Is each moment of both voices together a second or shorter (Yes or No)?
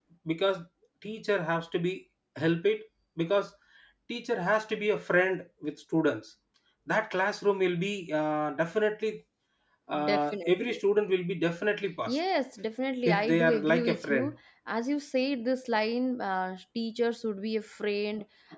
No